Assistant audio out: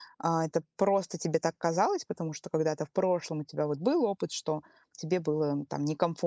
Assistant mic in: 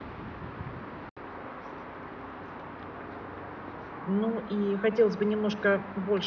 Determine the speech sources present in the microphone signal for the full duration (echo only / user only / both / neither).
user only